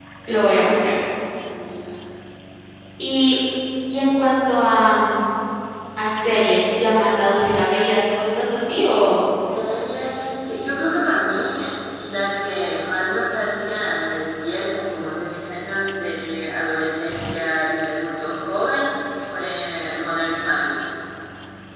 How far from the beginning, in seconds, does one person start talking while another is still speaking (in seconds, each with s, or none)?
none